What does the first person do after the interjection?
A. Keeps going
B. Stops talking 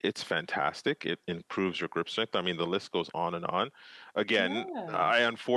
A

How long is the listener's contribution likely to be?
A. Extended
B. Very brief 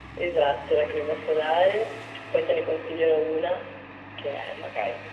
A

